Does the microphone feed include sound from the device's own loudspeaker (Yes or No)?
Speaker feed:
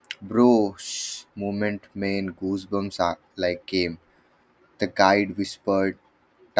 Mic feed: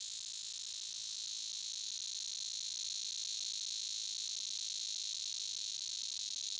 No